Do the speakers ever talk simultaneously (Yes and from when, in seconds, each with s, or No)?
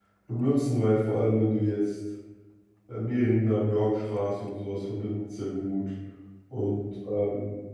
No